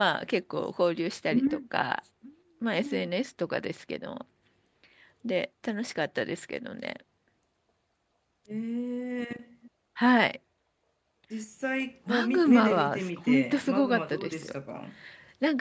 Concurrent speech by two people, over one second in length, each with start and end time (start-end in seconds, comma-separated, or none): 12.1-14.5